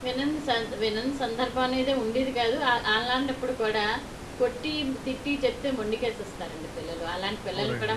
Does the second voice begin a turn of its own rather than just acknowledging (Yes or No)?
No